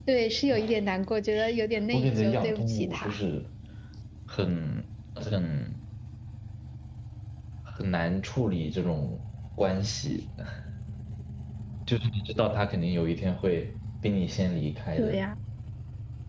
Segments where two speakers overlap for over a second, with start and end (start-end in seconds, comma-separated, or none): 1.9-3.2